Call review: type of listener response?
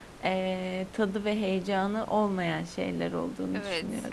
taking over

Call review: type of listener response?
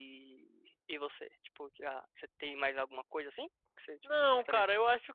taking over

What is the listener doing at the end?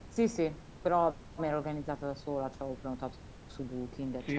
taking over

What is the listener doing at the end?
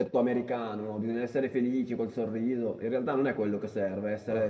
listening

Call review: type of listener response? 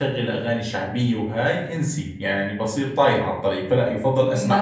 taking over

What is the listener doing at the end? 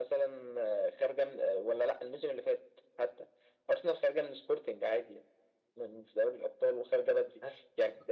listening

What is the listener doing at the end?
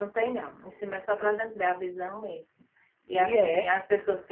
listening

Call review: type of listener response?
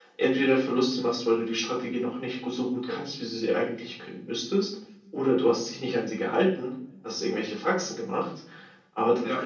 listening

